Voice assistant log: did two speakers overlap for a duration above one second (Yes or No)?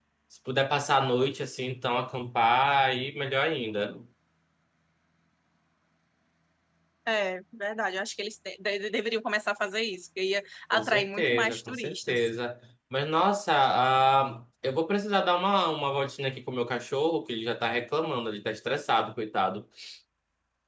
Yes